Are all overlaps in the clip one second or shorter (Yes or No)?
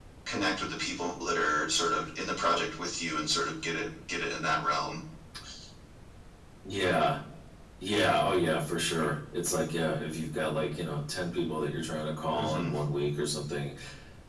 Yes